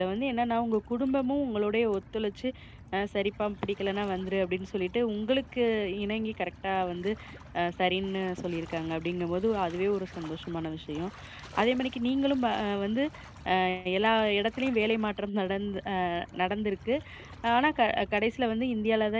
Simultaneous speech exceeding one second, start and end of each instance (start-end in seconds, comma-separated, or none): none